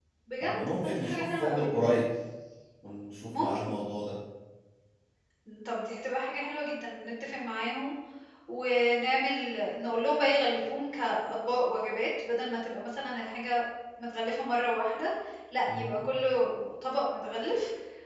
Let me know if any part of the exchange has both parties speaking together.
Yes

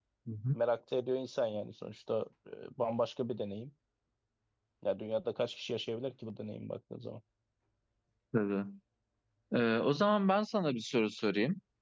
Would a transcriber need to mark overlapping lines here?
No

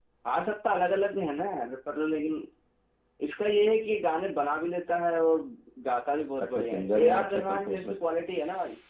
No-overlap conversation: No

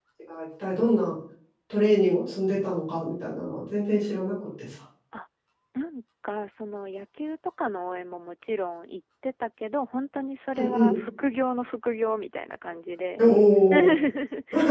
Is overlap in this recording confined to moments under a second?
Yes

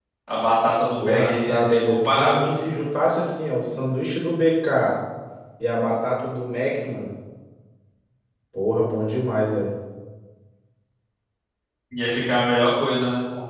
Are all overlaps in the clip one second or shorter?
No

